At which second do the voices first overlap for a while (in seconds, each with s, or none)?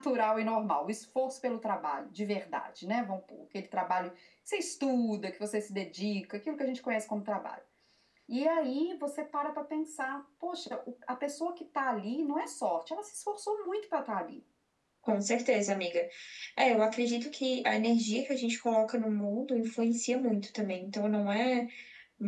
none